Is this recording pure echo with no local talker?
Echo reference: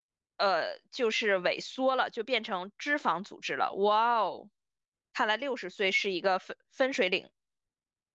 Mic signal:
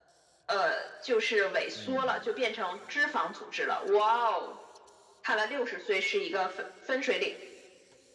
No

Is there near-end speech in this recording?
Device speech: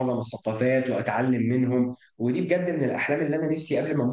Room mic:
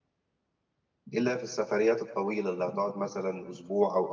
Yes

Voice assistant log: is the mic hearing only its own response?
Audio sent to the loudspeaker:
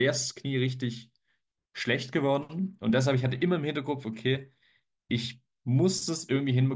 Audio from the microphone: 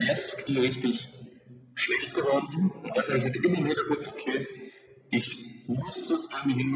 Yes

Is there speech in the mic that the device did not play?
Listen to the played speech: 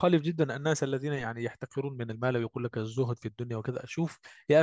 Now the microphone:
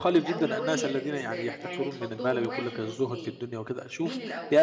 Yes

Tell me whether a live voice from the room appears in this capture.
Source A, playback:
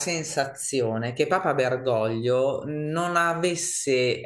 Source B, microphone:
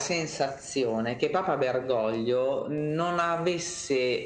No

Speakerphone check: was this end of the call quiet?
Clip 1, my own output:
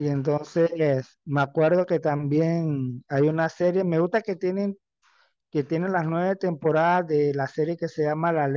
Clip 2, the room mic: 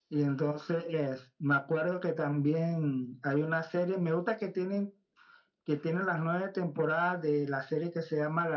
Yes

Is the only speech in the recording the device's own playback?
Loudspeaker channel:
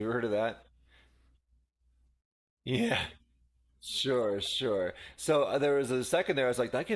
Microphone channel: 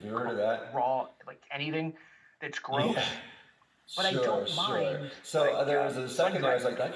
No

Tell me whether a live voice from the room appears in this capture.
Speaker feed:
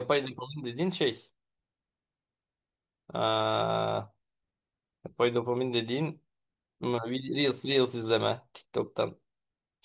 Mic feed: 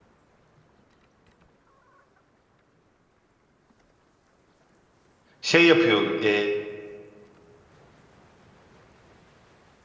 Yes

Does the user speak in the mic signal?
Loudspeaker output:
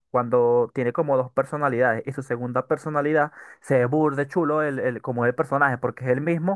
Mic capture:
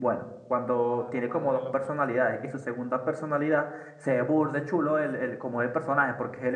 Yes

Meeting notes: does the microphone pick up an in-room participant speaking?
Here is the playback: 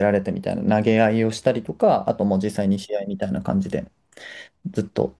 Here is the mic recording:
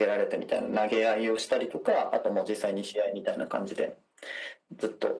No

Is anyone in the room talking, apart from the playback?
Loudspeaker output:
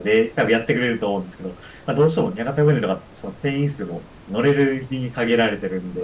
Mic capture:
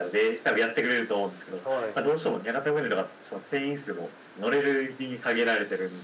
Yes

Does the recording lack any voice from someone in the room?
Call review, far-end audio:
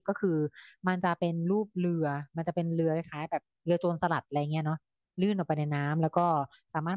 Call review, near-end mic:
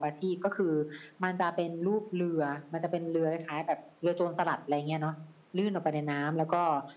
Yes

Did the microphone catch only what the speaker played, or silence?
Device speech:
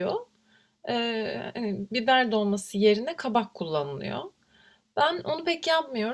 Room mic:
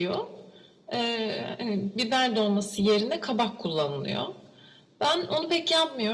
Yes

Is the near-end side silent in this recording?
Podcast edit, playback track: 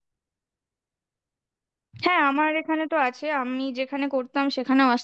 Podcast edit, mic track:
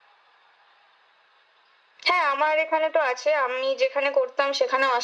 Yes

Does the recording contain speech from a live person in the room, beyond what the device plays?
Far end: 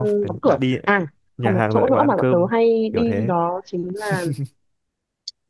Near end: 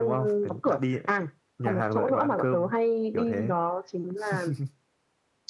No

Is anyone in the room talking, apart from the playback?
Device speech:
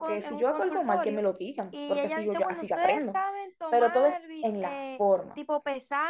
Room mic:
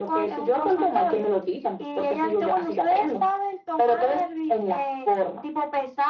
No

